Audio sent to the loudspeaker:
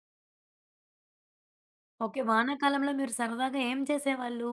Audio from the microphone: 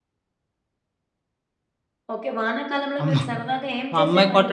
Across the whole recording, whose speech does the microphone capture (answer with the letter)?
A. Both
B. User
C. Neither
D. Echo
A